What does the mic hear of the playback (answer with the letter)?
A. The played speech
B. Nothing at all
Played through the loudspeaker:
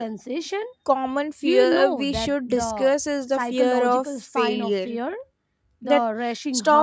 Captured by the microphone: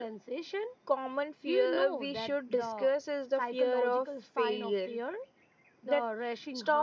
A